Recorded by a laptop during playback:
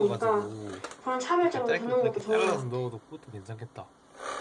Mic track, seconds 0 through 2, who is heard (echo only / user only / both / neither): both